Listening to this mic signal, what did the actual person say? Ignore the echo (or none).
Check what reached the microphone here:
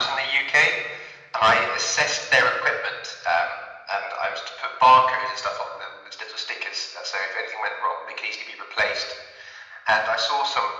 none